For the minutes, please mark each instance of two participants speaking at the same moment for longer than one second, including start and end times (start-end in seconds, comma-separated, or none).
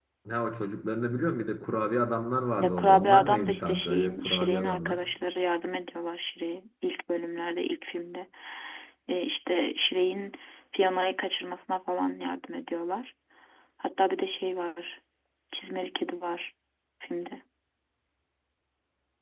2.6-5.0